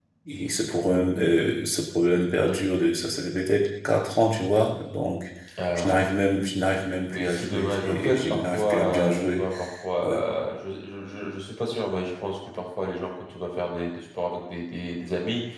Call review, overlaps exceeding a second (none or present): present